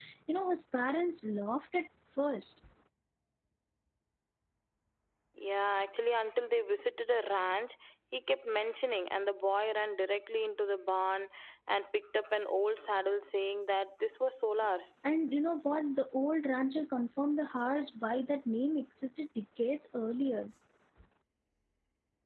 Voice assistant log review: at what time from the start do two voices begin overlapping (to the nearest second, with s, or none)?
none